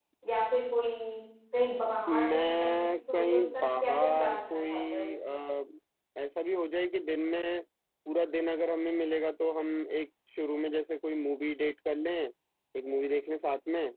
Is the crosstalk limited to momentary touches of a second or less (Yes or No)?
No